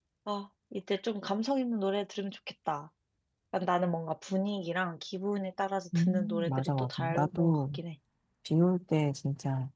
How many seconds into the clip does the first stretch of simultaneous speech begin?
5.9 s

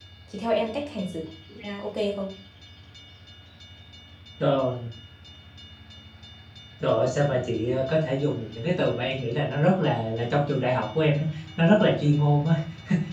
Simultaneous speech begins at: none

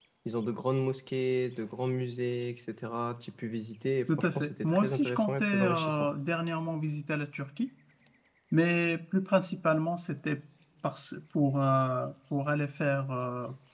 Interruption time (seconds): 4.1 s

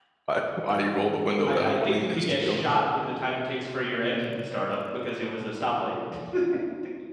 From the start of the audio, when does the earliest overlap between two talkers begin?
1.4 s

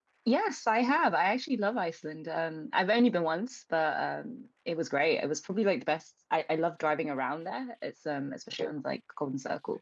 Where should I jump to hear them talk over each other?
none

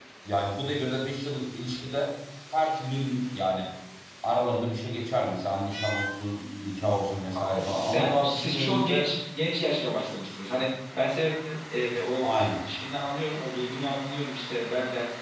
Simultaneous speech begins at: 7.6 s

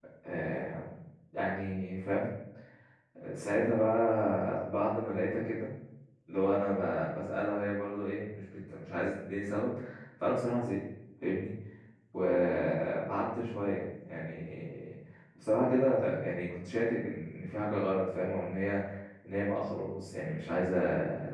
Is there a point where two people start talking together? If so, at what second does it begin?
none

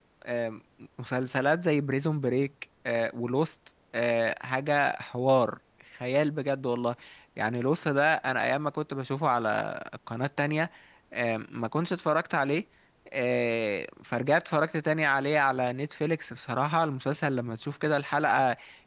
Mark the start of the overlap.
none

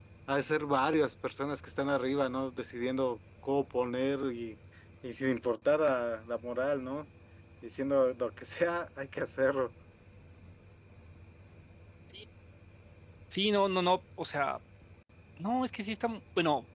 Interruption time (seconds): none

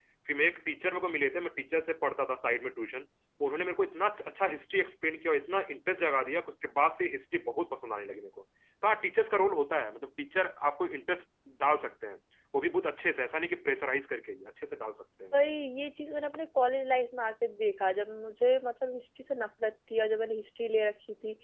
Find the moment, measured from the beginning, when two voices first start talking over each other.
none

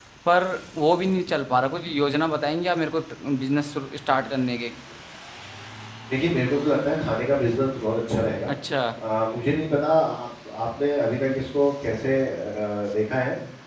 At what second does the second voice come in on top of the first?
none

